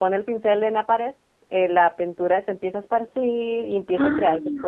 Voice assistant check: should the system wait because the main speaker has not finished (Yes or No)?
Yes